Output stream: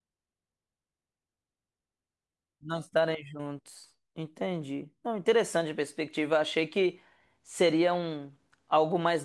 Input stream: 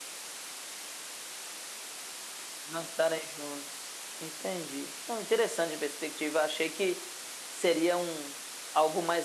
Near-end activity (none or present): none